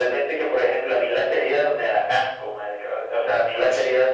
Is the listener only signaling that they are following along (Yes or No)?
Yes